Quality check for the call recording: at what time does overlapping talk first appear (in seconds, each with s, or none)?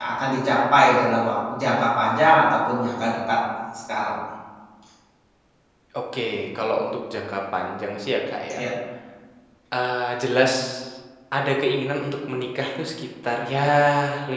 none